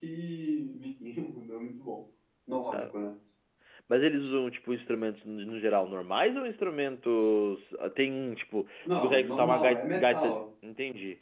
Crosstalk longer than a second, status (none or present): present